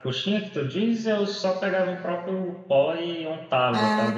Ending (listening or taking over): listening